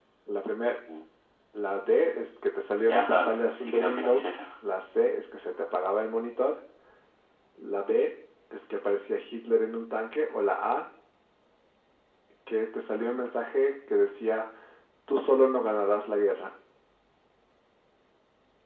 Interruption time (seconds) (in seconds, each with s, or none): 2.9 s